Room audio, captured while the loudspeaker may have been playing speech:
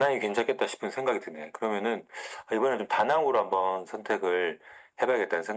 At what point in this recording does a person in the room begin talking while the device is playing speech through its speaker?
none

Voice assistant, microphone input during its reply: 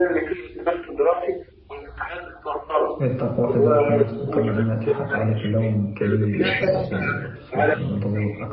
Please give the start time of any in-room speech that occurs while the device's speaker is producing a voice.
3.0 s

